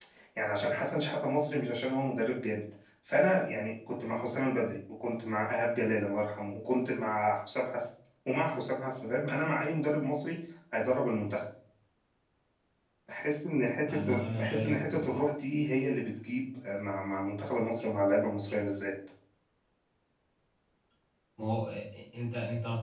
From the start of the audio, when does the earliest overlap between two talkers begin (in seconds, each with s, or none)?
13.9 s